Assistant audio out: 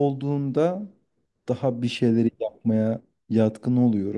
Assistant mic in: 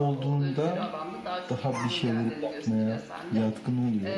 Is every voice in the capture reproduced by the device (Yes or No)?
No